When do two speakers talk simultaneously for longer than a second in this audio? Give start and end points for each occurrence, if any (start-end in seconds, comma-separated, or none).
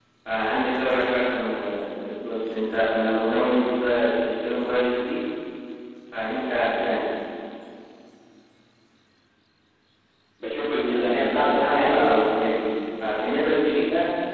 10.9-12.2